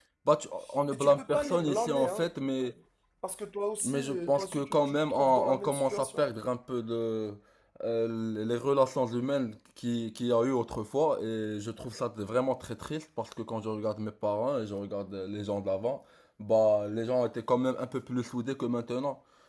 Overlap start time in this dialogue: 0.9 s

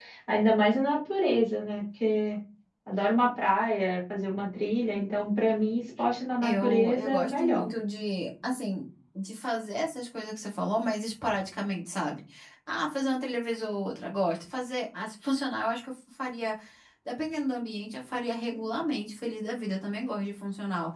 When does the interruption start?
6.4 s

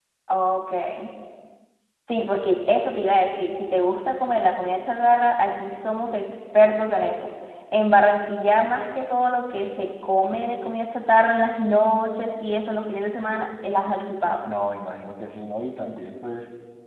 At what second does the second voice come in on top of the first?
none

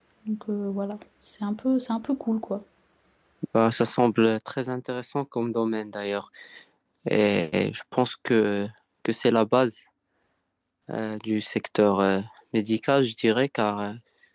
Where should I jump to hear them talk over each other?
none

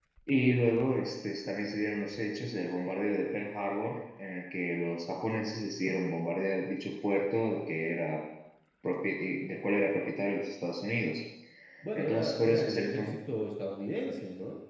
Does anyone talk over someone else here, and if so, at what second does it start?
11.9 s

